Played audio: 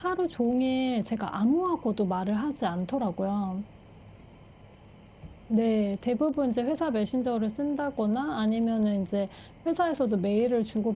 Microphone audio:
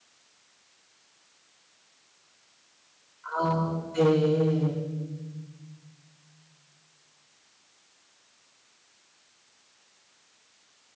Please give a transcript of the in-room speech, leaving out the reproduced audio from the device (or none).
아 네.